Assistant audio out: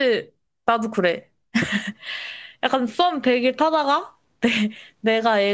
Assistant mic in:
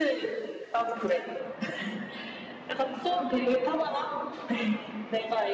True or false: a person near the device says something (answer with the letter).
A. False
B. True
A